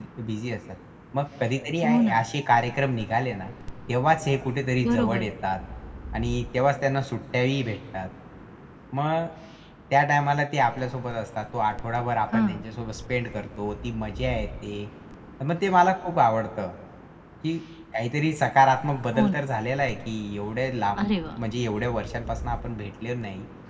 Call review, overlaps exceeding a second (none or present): none